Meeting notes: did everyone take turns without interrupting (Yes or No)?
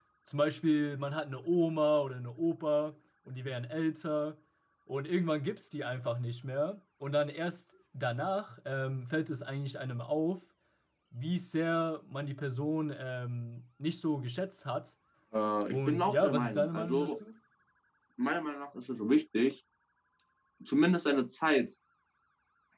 No